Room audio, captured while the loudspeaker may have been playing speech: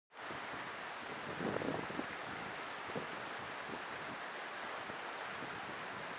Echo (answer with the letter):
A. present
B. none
B